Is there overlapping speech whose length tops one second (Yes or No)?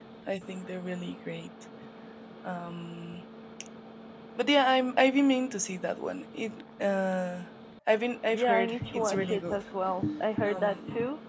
Yes